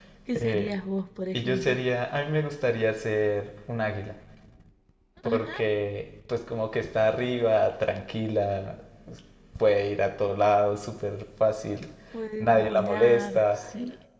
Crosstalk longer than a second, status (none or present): present